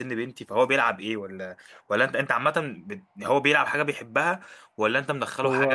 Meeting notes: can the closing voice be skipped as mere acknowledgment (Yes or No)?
No